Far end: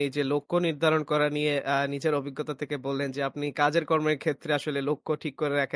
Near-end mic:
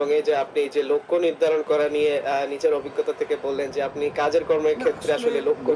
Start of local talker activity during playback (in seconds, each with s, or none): 4.8 s